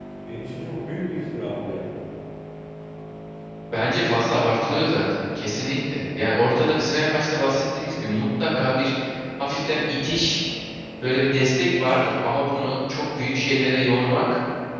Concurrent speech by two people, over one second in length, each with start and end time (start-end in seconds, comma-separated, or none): none